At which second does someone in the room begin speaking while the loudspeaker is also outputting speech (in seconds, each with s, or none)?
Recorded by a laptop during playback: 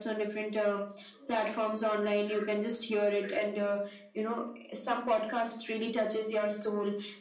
none